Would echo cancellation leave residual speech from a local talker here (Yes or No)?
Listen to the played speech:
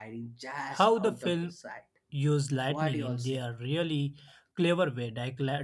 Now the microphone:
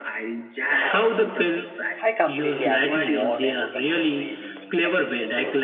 Yes